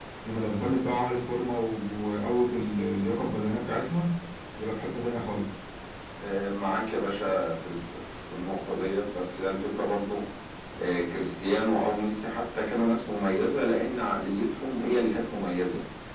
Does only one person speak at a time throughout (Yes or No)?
Yes